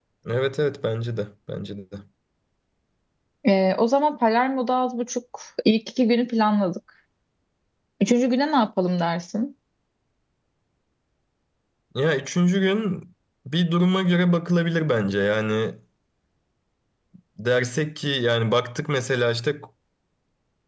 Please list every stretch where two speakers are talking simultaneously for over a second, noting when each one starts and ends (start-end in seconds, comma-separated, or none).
none